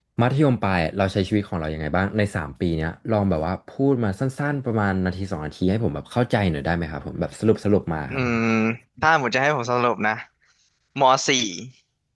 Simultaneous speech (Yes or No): No